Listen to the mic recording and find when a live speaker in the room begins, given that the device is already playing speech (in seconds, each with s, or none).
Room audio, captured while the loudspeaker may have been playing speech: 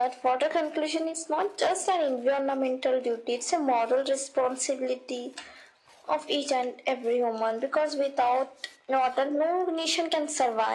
none